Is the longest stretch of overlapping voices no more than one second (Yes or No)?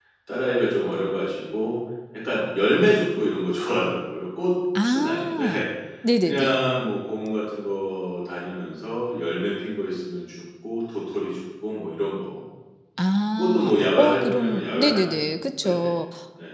No